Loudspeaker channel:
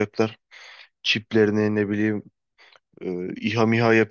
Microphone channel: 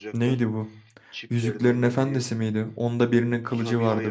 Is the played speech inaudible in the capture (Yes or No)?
No